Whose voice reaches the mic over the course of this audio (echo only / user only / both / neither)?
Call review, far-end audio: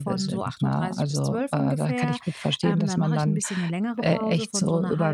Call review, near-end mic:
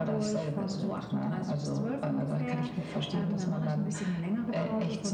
echo only